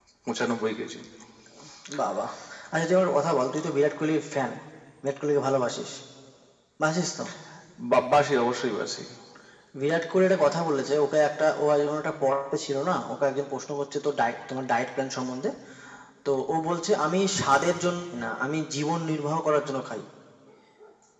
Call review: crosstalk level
none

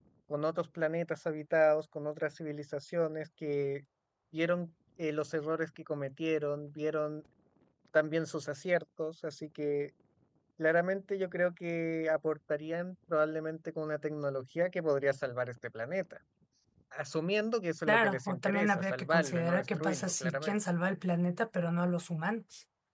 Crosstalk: present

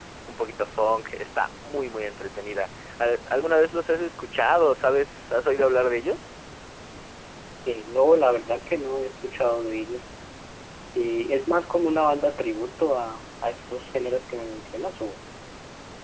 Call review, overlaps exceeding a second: none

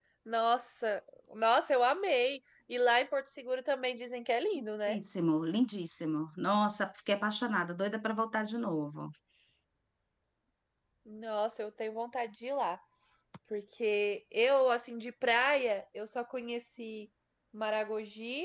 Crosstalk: none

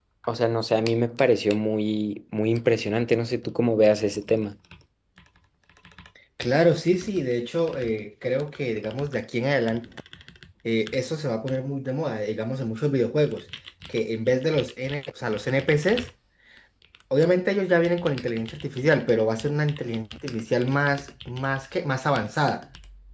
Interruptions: none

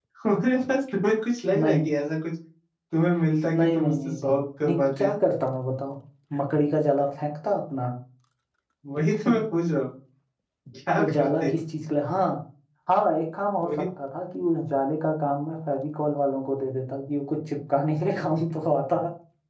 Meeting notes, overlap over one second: present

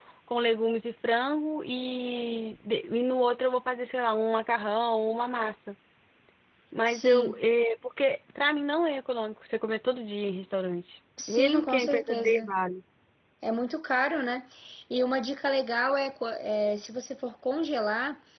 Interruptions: present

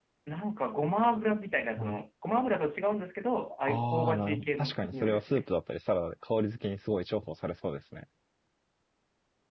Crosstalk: present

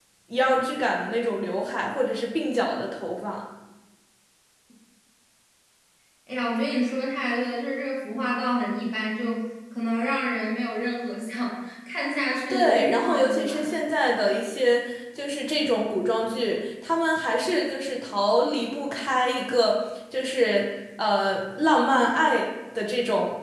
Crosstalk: present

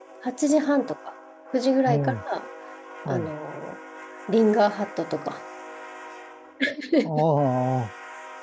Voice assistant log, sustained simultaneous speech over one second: none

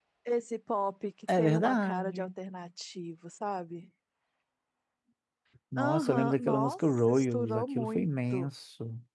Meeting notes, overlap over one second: present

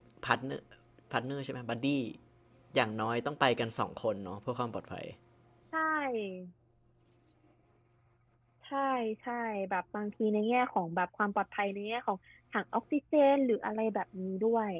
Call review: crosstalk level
none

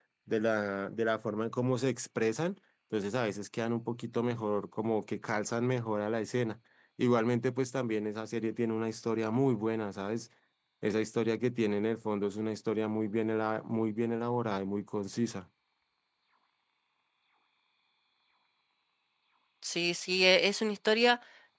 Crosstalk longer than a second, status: none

